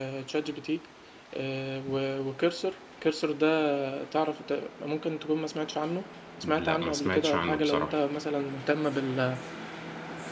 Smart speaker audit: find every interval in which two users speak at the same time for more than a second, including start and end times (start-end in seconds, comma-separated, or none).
6.4-7.9